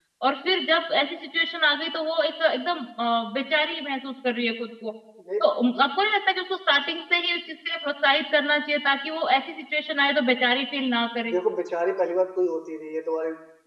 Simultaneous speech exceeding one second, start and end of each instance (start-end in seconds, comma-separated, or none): none